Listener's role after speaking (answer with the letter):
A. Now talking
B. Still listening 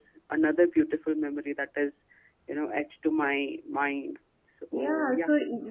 A